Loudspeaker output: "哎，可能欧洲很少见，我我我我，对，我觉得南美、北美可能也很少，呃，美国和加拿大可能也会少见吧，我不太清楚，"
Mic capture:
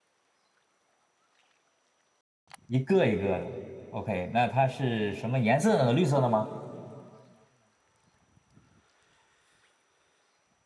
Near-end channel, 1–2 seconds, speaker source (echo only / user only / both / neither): neither